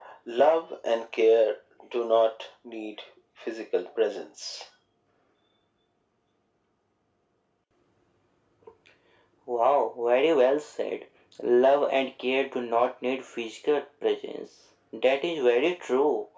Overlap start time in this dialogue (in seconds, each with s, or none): none